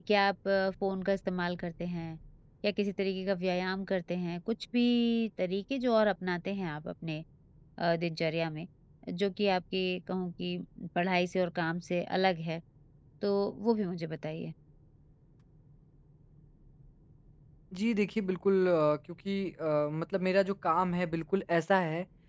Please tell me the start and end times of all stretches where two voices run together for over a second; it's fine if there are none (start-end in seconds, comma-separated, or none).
none